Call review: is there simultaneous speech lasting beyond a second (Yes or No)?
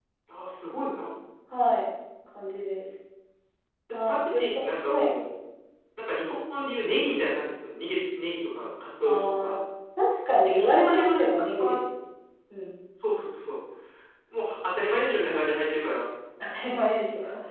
Yes